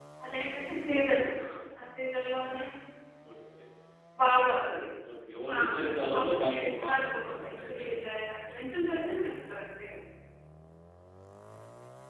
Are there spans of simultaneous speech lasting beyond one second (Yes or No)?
Yes